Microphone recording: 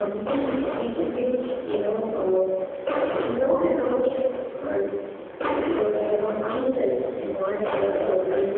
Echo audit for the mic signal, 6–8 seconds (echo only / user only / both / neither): echo only